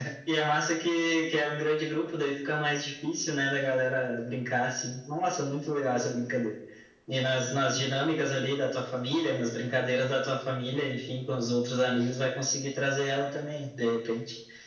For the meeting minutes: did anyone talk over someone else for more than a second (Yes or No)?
No